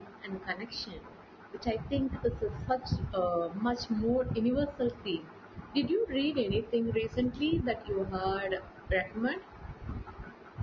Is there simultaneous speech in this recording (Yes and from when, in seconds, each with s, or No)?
No